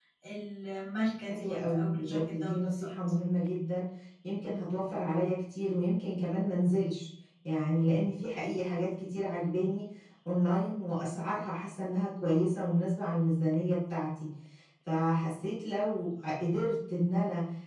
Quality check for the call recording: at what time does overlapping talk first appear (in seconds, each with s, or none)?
1.3 s